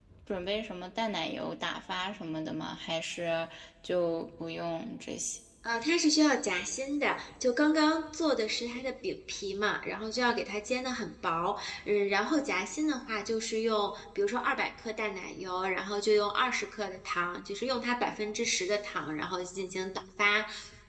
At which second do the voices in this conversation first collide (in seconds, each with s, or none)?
none